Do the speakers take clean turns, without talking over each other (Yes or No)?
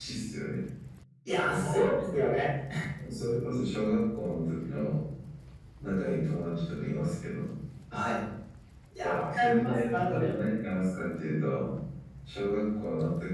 No